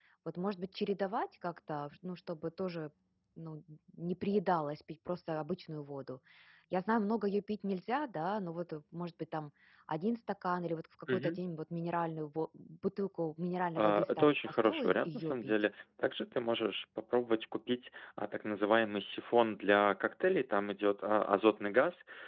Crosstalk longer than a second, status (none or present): present